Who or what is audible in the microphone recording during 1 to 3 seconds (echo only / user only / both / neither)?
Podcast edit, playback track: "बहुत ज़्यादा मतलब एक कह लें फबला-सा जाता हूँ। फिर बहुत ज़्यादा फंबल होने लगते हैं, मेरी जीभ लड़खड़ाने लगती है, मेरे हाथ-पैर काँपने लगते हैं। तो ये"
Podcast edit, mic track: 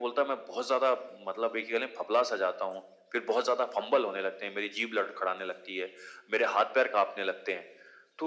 echo only